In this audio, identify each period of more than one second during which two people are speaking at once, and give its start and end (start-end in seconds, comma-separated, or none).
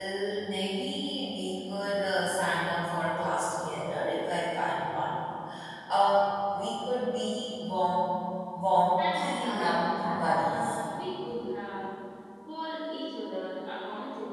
9.0-10.8